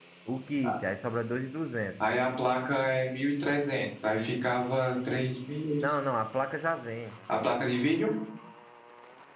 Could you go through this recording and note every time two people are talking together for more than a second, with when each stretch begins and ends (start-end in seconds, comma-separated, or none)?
none